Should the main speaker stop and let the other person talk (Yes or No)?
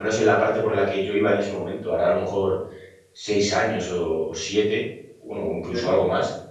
No